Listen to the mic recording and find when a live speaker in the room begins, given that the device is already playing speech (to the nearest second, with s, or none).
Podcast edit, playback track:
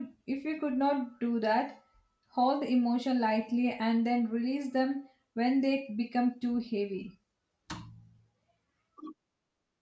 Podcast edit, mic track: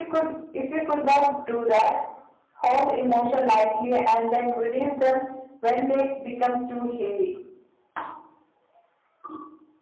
none